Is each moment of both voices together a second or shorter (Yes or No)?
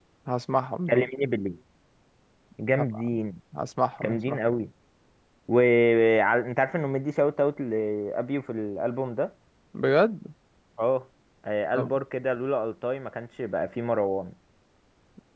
Yes